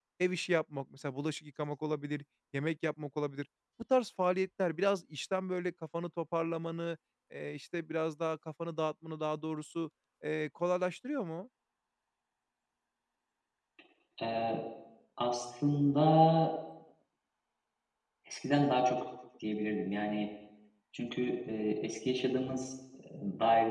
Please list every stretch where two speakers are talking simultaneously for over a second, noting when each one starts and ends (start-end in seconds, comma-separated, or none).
none